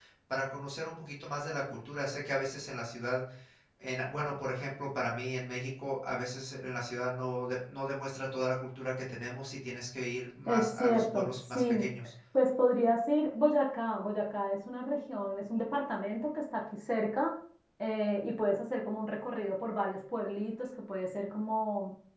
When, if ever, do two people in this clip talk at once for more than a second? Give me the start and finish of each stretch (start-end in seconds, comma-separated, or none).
10.5-11.8